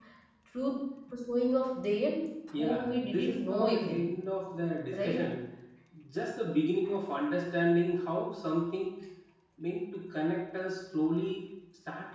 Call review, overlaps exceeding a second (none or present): present